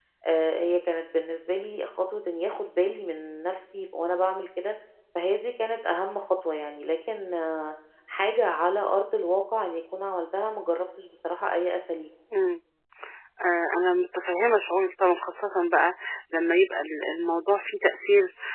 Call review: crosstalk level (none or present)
none